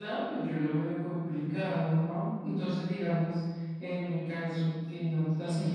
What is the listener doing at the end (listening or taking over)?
listening